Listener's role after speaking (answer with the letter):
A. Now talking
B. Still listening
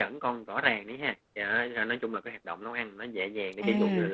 B